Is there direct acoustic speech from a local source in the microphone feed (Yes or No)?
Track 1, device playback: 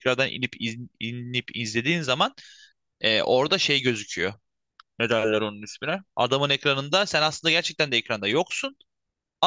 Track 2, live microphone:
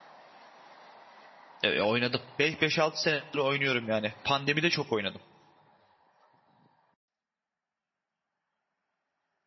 Yes